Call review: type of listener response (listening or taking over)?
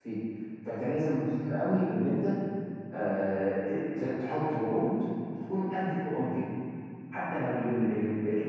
listening